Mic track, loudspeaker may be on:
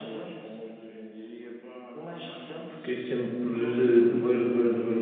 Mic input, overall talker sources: both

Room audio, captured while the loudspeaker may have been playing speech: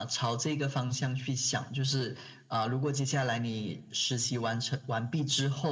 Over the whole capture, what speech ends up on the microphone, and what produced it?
echo only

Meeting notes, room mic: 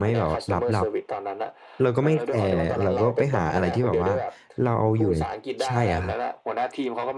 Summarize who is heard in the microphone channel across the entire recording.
both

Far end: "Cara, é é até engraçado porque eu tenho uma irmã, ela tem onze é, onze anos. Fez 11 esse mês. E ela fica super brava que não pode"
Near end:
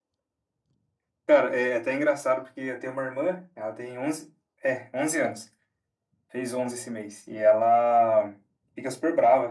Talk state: echo only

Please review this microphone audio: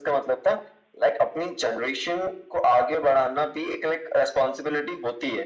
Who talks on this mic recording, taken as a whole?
echo only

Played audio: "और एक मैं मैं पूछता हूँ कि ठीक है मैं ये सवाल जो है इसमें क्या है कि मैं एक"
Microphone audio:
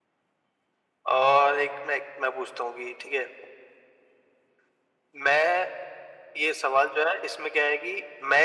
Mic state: echo only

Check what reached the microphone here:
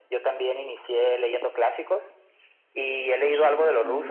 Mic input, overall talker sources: both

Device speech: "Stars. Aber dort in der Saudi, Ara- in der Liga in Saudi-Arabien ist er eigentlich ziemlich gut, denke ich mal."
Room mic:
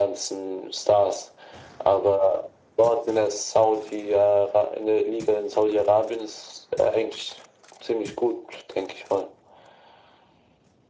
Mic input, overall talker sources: echo only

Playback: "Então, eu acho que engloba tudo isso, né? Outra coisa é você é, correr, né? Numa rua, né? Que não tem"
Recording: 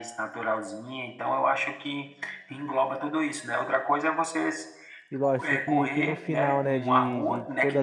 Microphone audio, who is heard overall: both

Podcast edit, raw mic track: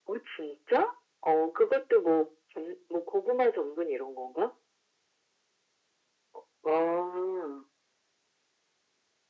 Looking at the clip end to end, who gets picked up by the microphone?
echo only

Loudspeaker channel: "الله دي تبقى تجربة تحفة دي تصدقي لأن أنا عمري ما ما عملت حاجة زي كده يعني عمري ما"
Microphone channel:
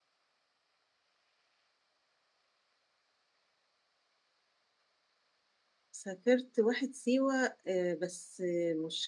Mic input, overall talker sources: user only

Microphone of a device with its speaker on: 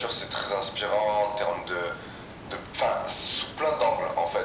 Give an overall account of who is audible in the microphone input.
echo only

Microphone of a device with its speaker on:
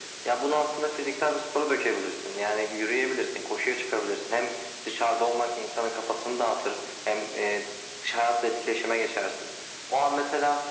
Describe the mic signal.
echo only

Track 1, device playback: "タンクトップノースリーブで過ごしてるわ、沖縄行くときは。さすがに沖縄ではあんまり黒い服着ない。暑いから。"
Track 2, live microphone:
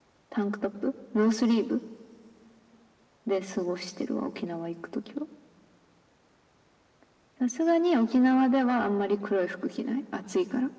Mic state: echo only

